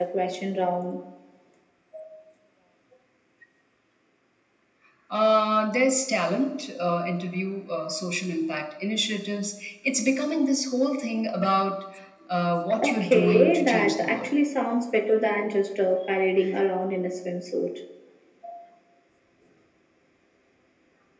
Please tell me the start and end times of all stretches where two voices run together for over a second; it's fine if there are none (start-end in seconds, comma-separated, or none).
12.8-14.3